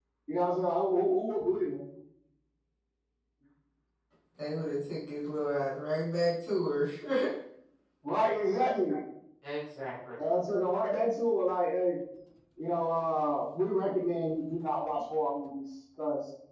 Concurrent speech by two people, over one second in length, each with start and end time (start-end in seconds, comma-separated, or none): none